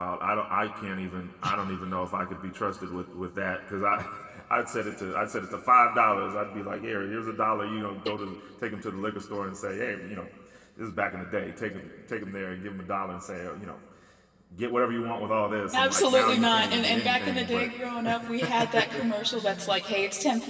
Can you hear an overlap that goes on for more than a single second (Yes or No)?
Yes